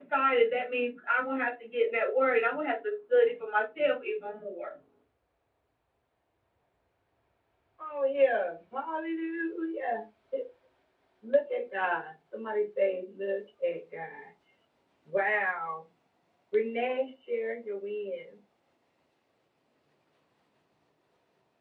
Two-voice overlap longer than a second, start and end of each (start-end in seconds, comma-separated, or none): none